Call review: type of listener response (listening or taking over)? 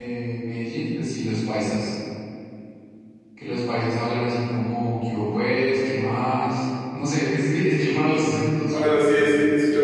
taking over